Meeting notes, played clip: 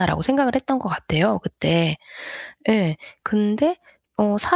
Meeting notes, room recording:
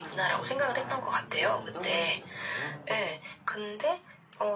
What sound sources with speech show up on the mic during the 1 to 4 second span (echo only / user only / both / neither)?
both